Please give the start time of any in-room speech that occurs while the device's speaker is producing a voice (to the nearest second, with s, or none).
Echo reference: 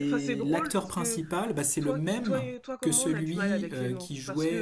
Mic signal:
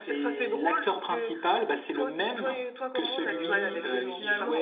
3 s